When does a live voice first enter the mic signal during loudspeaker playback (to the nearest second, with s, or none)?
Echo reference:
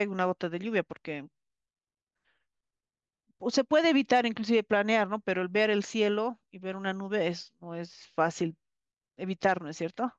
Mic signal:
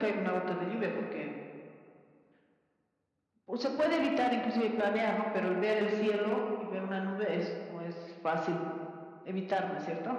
none